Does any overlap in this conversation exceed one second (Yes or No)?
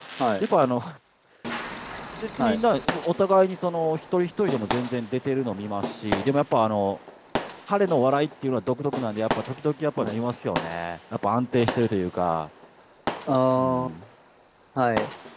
No